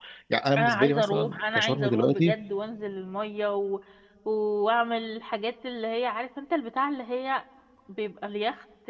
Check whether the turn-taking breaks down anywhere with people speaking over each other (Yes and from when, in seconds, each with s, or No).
Yes, from 0.6 s